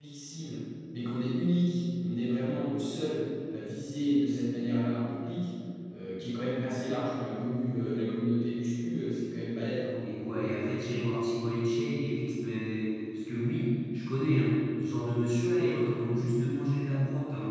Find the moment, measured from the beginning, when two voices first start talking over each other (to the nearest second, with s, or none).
none